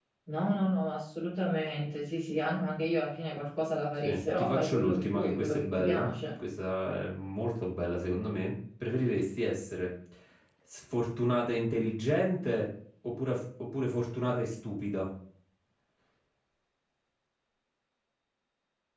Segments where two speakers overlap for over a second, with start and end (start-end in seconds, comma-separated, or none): 4.0-6.3